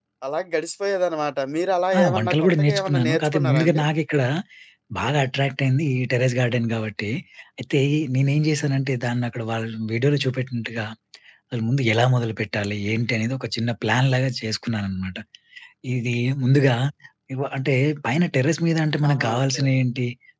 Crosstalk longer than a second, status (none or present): present